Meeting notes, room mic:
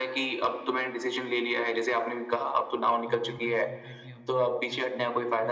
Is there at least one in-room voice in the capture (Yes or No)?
Yes